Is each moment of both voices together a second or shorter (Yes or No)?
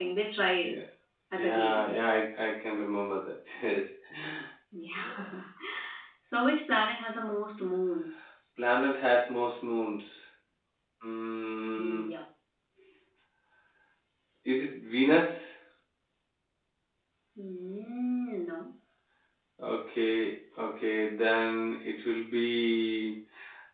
Yes